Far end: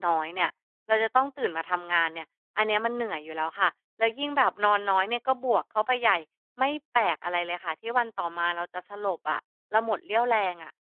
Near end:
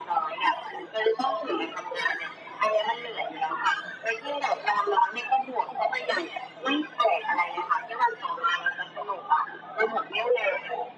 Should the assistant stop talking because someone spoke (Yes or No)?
No